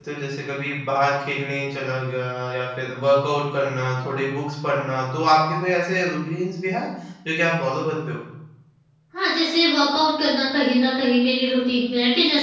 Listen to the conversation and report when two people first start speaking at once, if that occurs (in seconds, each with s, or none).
none